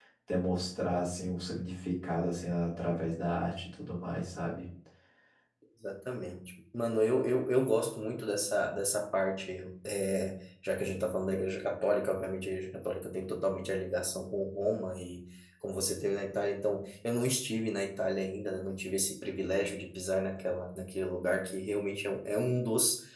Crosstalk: none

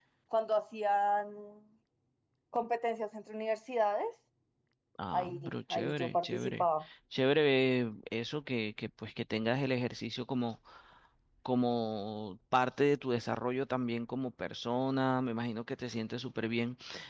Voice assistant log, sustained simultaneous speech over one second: present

